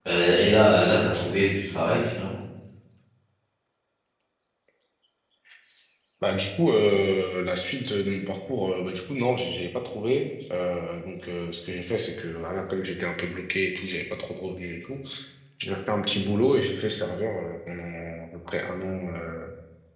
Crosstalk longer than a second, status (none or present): none